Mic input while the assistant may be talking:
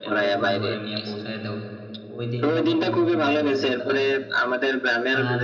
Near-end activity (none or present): present